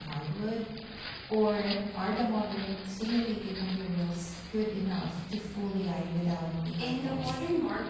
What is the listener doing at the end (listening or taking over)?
taking over